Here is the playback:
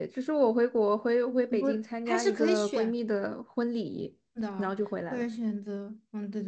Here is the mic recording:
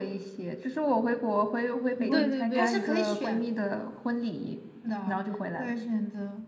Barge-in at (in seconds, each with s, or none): 2.1 s